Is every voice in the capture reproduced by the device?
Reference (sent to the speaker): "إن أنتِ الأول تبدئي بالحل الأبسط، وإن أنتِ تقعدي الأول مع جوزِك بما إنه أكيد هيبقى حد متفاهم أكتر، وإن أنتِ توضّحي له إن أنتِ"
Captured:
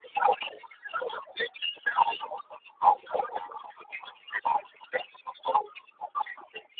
Yes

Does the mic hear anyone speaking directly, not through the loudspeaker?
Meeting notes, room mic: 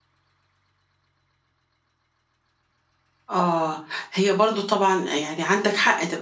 Yes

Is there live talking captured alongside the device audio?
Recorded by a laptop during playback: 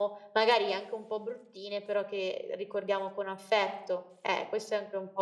Yes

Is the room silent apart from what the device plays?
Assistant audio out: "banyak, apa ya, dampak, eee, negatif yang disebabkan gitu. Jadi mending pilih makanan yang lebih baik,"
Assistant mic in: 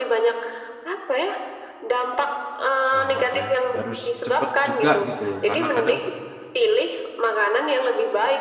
No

